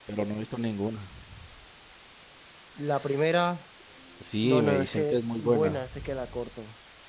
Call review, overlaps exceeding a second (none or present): present